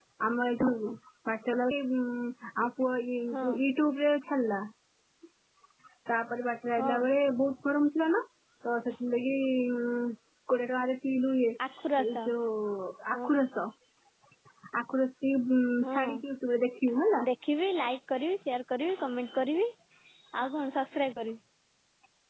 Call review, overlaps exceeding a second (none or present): none